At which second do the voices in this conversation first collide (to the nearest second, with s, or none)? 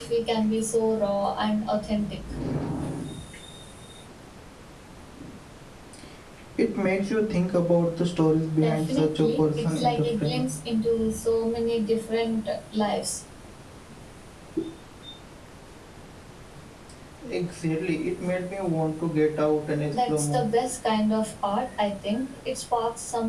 9 s